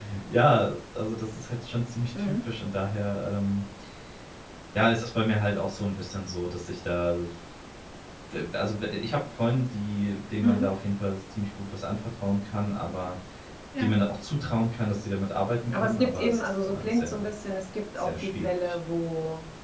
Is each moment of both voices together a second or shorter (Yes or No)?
No